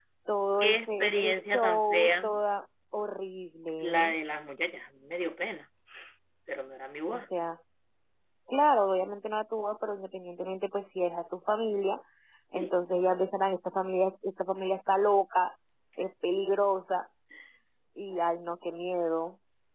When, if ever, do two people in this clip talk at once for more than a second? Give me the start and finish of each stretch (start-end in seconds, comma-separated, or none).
0.6-2.3